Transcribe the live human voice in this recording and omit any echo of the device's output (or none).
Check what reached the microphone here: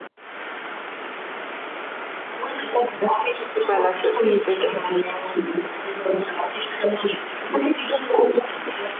C'est pas la seule, je déteste.